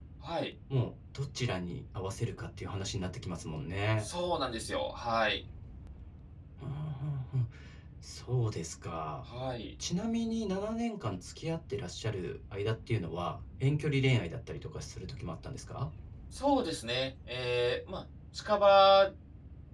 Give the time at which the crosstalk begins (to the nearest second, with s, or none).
none